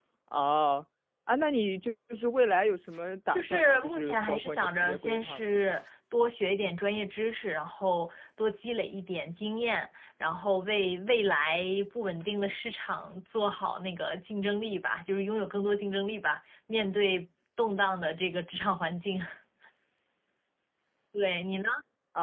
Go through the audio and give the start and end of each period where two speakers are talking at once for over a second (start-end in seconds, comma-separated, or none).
3.3-5.4